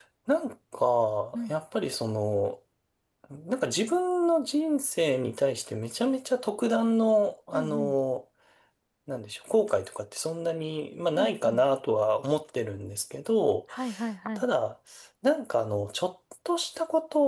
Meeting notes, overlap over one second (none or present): none